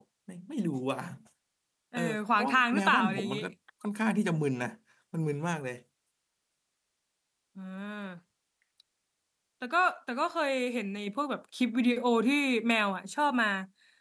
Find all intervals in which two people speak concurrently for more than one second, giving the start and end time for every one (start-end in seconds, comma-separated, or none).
2.0-3.4